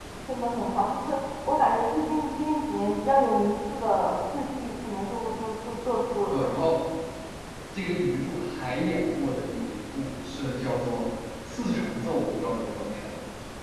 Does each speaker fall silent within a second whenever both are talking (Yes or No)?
Yes